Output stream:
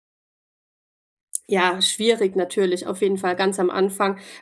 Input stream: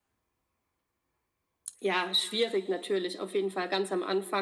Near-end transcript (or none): none